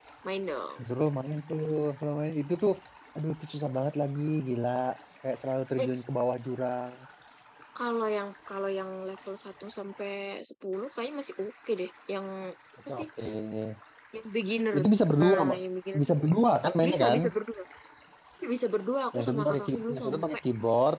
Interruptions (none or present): present